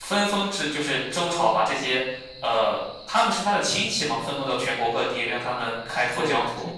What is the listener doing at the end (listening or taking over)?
taking over